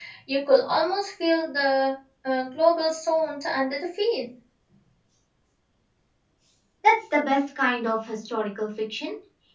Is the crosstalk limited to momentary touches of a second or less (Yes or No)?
Yes